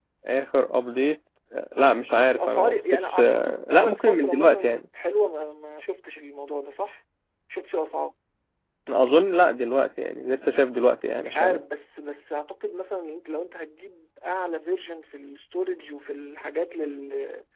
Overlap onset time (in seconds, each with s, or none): 2.3 s